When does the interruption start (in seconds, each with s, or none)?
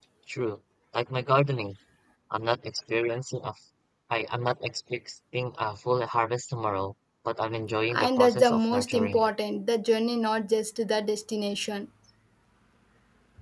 7.9 s